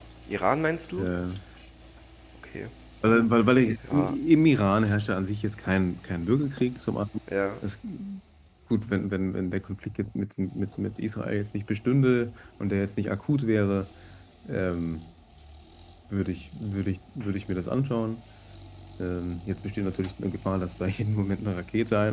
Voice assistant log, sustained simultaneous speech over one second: none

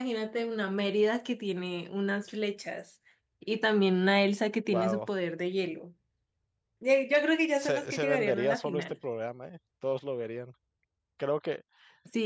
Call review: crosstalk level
present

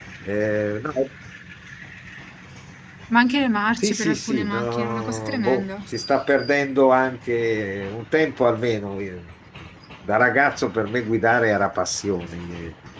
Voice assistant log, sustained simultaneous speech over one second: present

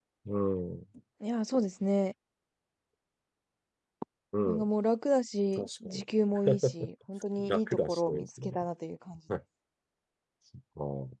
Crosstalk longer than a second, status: present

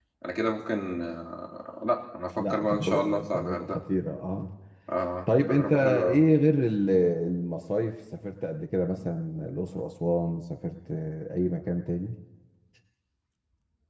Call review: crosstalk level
present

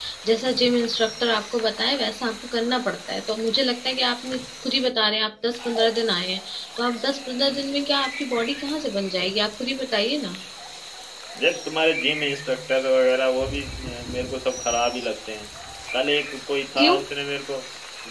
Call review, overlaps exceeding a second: none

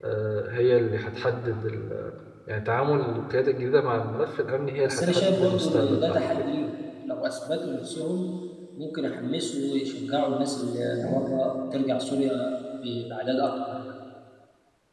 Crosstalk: present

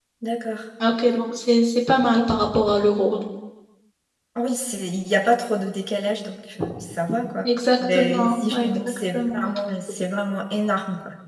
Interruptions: present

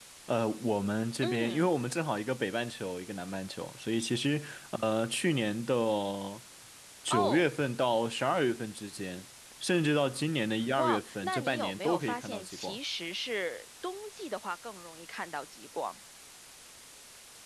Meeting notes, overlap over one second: present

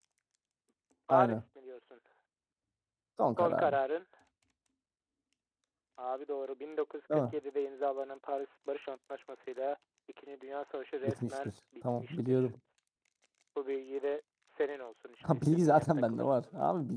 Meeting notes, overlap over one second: present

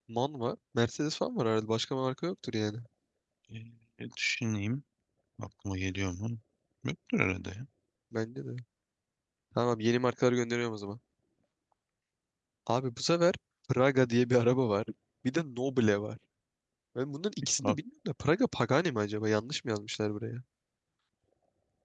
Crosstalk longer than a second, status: none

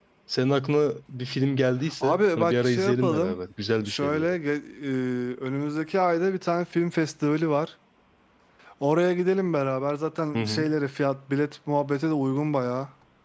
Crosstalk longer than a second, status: present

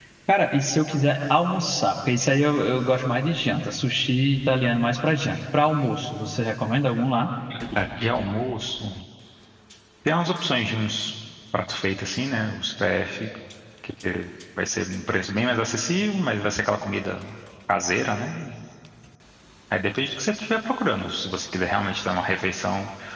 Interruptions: none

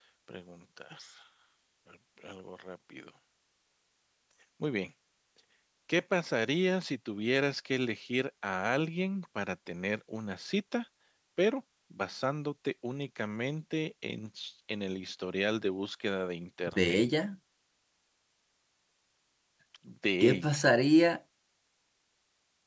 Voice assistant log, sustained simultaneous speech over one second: none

